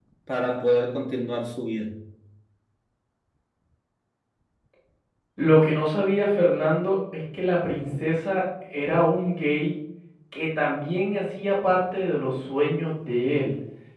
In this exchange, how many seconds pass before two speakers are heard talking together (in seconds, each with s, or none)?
none